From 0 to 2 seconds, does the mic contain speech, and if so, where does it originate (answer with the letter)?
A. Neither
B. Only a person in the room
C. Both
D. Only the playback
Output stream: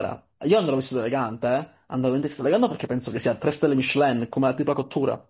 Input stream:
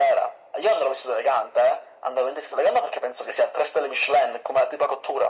D